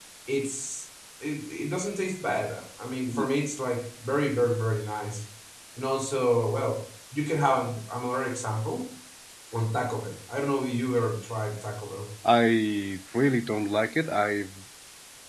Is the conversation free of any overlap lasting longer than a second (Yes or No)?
Yes